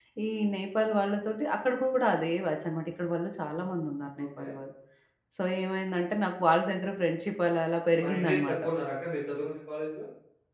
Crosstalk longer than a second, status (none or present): none